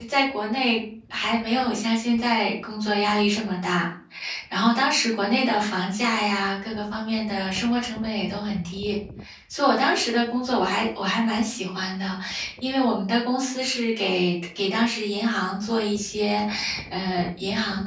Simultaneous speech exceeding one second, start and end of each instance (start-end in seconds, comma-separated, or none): none